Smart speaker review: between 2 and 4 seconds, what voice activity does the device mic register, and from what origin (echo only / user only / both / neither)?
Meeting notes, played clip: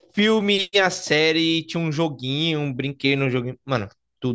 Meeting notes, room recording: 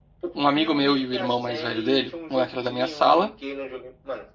both